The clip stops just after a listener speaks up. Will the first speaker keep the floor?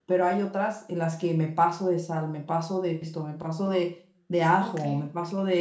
Yes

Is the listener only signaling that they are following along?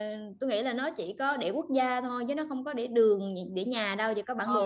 No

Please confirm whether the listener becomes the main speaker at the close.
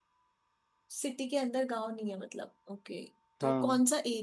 No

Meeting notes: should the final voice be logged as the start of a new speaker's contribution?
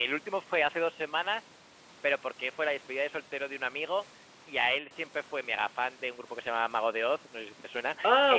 Yes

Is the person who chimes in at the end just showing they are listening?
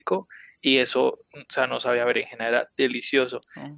Yes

